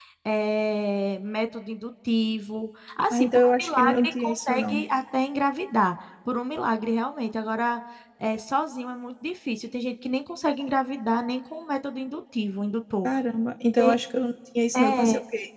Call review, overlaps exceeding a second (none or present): present